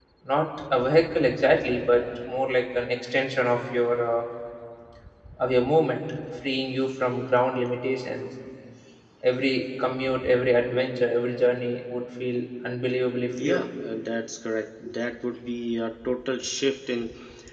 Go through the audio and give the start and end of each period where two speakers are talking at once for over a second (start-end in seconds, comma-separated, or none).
none